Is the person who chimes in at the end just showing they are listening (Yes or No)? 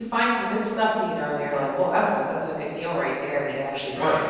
Yes